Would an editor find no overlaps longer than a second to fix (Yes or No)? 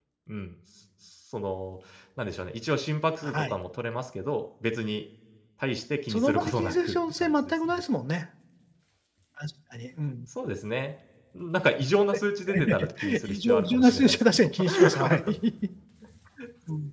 No